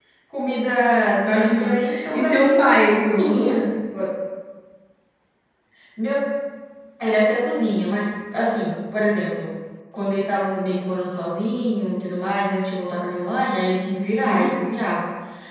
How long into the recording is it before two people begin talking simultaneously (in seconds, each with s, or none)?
1.2 s